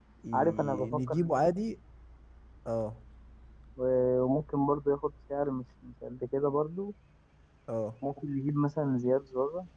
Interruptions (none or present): present